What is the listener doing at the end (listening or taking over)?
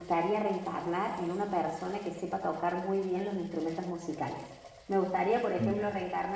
listening